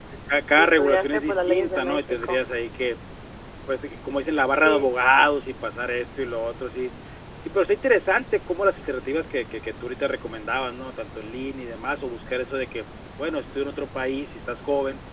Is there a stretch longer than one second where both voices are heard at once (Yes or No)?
Yes